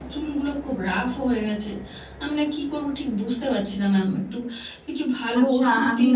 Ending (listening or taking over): taking over